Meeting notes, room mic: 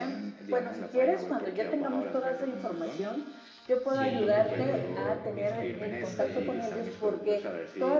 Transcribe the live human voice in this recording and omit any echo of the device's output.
y tú tienes de pronto conocimientos de,

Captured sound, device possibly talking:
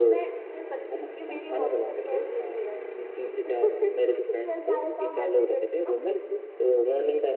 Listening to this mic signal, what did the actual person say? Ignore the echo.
none

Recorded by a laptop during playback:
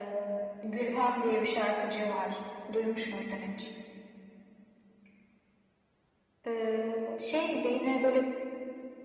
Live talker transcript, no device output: none

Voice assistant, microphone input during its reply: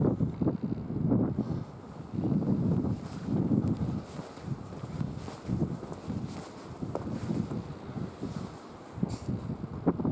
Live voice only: none

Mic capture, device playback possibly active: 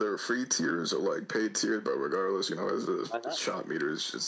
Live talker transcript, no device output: Why not?

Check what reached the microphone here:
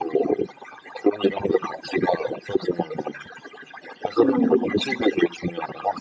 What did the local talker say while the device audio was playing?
음.

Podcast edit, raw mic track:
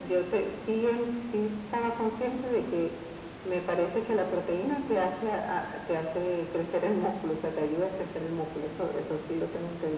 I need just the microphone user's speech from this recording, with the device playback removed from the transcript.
none

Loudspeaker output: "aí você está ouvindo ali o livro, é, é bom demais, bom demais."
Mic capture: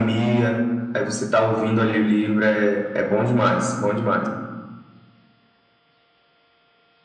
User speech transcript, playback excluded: none

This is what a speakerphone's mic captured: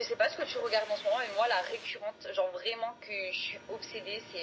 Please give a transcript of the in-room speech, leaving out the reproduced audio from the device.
none

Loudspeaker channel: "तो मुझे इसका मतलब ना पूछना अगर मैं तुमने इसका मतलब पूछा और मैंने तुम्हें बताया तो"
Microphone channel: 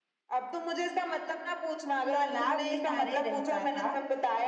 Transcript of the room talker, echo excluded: तालाब किनारे रहता था

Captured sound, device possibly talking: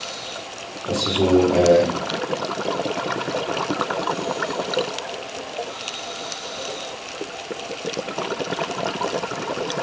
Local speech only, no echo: dass du so äh,

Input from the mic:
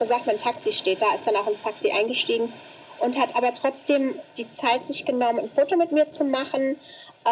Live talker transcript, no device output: none

